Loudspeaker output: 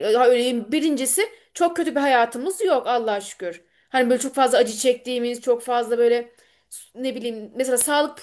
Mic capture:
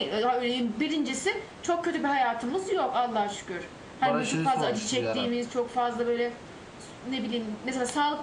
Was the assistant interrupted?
Yes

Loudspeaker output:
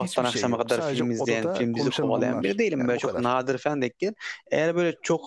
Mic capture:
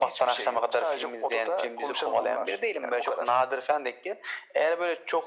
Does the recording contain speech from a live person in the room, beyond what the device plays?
No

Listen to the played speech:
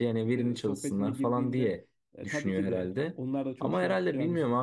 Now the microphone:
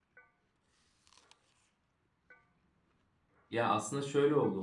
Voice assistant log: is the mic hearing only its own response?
No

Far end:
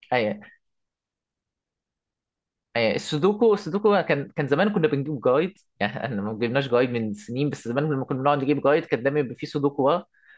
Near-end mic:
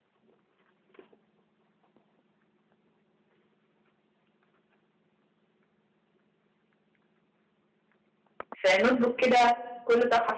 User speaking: Yes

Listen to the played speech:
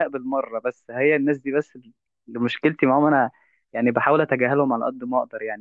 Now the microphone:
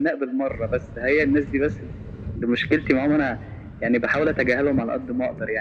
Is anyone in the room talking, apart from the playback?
No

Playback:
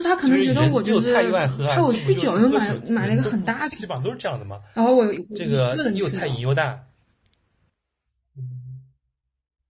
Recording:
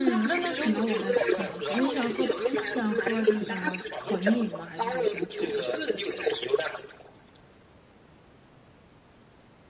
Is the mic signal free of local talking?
No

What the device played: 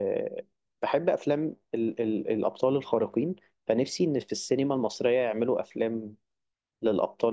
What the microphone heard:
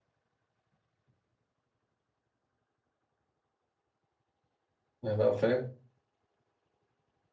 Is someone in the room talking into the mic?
Yes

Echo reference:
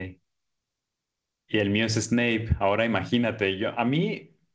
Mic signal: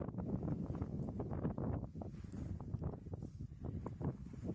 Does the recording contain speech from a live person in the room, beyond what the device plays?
No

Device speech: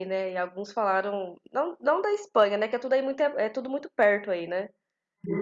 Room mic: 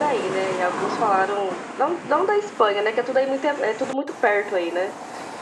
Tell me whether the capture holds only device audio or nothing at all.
Yes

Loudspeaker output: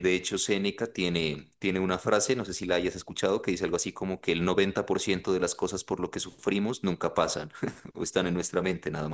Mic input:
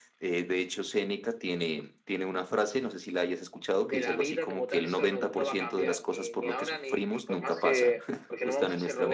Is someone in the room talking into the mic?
Yes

